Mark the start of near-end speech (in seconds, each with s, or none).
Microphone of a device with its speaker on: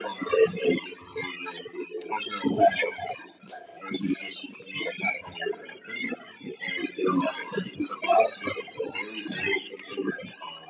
none